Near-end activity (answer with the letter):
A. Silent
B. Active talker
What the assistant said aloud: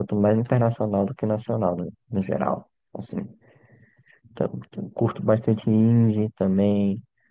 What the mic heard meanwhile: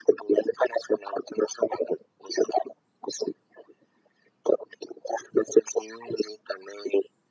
A